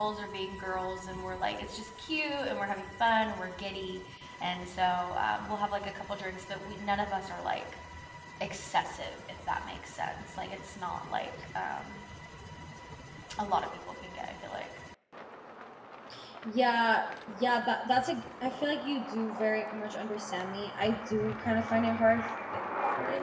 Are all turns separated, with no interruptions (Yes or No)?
Yes